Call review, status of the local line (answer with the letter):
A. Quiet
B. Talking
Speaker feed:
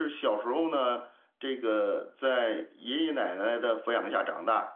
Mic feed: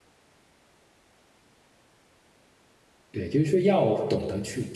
B